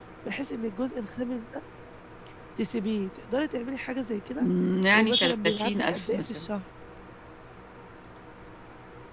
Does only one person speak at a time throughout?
No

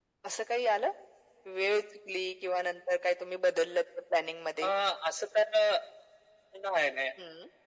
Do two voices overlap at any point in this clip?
No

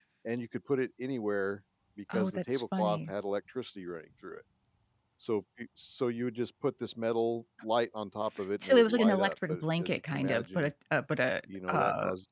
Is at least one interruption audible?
Yes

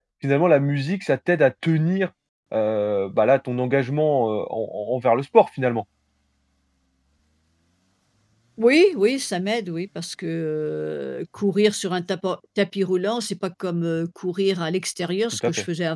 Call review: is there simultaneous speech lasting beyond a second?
No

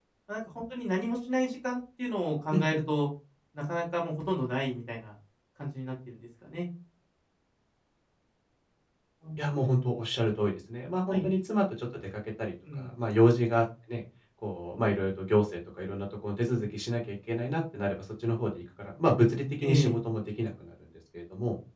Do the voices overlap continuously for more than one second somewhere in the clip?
No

